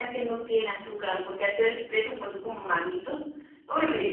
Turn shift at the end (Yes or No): Yes